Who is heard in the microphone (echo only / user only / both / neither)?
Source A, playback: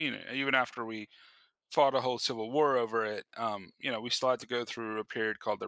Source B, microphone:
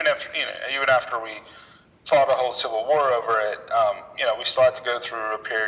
echo only